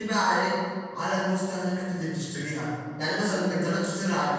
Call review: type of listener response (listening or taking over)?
listening